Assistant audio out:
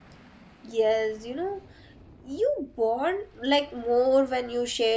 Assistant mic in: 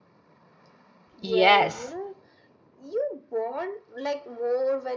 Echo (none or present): present